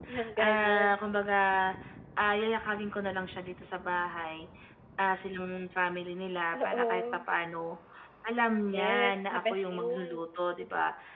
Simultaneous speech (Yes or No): Yes